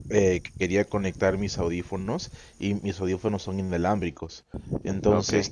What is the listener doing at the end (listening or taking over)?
listening